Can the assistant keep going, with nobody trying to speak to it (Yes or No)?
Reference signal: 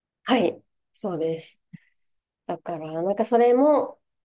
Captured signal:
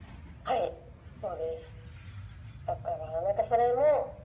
Yes